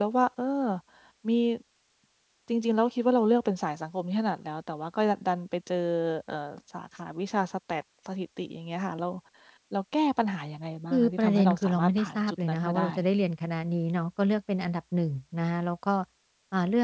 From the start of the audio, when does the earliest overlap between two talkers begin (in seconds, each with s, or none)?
10.9 s